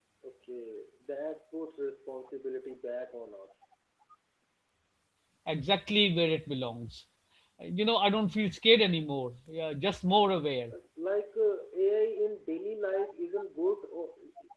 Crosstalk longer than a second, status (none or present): none